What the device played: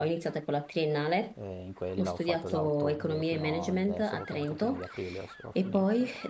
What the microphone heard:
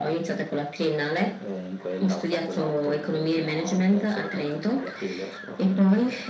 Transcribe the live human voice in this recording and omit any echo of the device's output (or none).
none